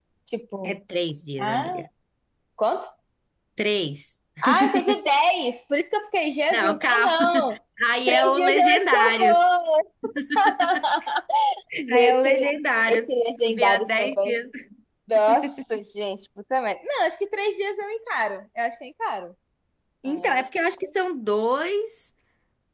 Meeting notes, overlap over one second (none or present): present